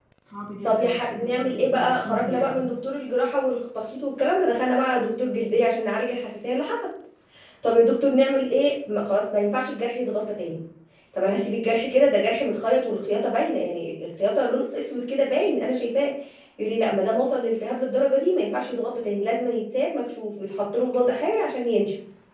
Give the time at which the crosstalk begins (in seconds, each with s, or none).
0.6 s